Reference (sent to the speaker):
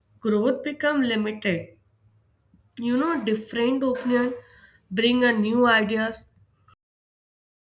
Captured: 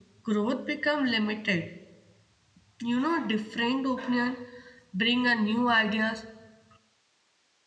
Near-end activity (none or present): none